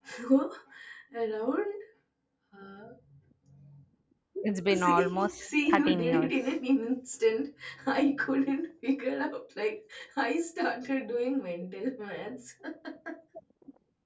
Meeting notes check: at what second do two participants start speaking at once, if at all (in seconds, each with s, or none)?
4.7 s